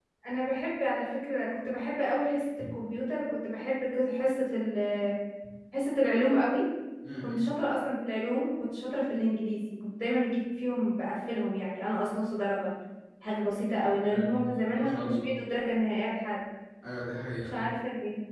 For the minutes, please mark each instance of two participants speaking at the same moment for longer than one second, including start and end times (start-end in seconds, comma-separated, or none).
14.1-15.3